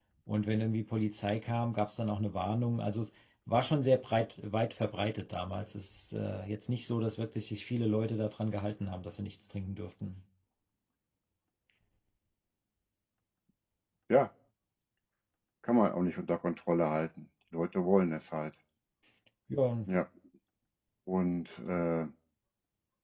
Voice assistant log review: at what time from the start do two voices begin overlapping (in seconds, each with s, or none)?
none